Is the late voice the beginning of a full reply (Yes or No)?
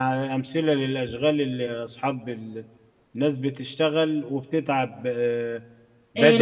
Yes